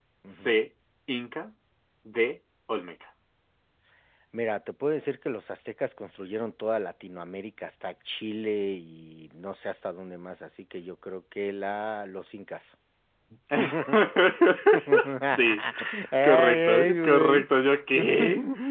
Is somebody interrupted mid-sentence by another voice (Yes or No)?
Yes